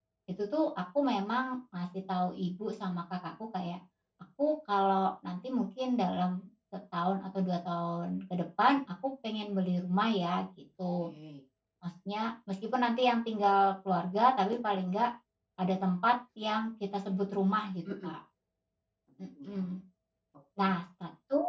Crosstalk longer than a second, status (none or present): none